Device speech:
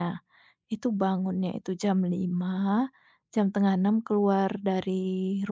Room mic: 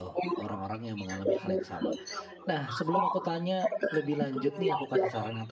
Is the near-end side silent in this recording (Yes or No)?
No